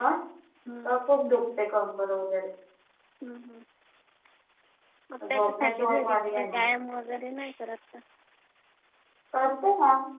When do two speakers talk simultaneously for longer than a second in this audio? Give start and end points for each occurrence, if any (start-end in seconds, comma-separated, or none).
5.3-6.6